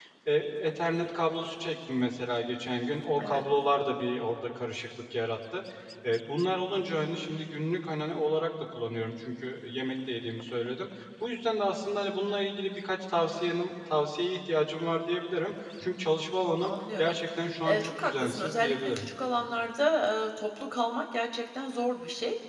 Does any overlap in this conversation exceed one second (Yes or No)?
Yes